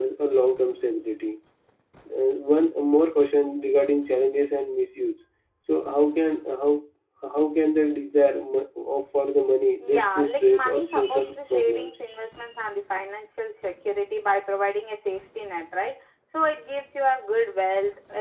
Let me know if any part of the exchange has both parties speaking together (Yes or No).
Yes